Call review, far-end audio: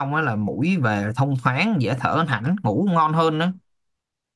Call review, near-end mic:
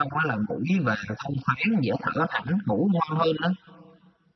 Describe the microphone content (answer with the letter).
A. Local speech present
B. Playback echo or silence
B